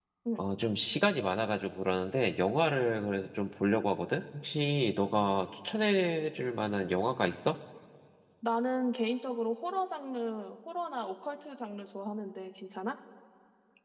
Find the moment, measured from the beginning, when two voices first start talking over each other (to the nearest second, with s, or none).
none